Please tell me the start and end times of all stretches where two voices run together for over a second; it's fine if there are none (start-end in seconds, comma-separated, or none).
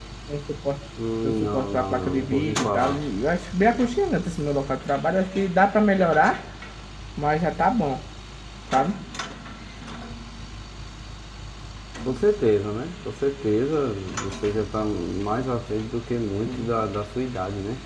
1.2-3.0